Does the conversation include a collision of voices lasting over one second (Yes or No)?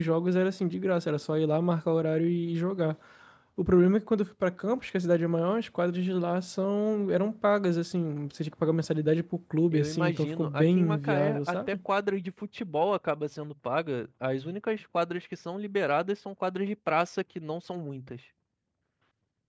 Yes